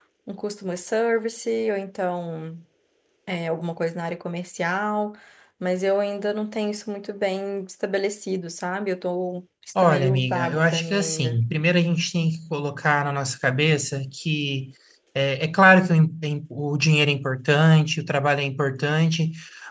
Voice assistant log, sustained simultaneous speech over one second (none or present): present